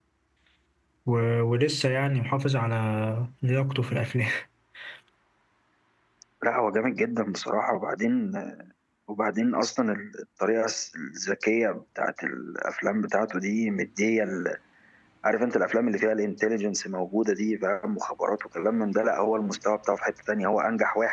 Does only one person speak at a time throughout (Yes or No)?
Yes